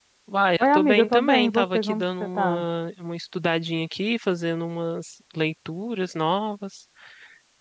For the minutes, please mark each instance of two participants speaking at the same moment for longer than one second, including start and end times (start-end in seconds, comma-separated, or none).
0.6-2.6